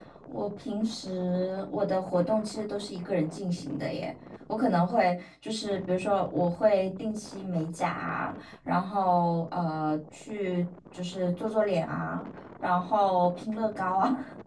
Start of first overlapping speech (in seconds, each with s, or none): none